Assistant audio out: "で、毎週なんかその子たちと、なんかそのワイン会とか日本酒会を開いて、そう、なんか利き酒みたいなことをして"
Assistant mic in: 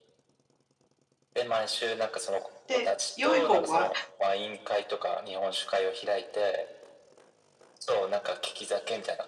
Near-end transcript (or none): で、良い方は